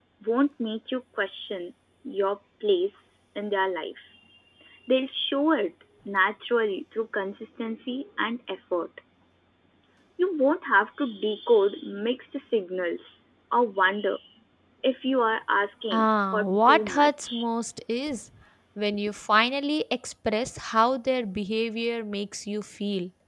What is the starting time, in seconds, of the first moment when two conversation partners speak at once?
15.9 s

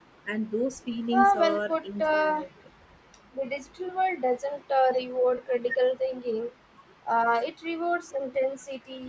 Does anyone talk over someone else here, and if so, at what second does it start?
1.1 s

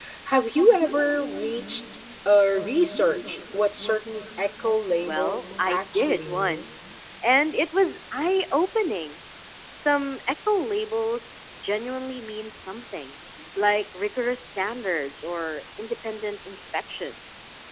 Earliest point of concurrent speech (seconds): 5.0 s

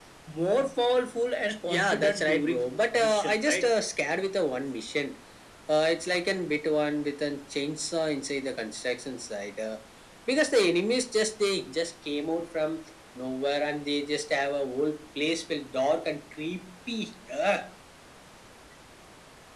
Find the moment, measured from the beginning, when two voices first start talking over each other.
1.7 s

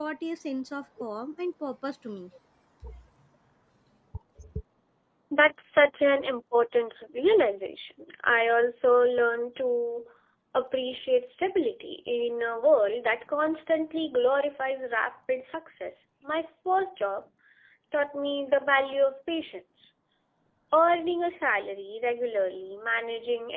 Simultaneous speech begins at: none

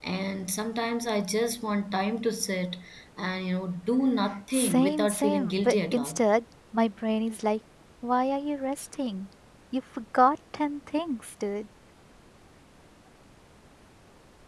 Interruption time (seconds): 4.5 s

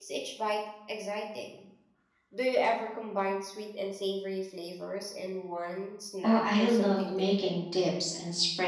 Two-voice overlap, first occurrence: 6.2 s

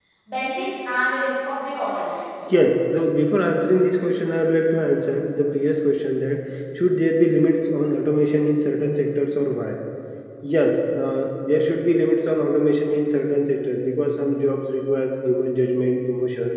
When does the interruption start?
none

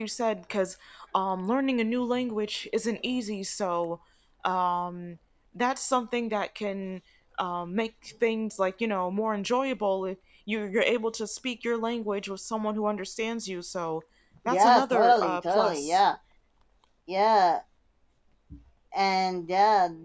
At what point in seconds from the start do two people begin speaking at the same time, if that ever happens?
14.5 s

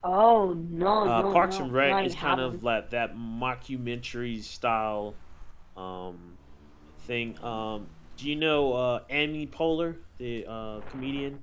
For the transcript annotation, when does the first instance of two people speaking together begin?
1.0 s

